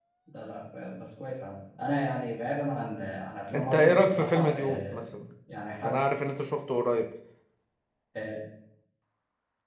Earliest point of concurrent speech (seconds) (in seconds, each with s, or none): 3.5 s